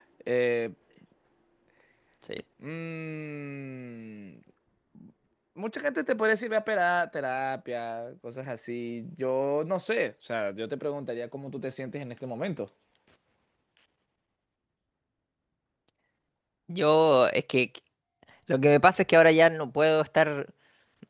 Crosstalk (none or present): none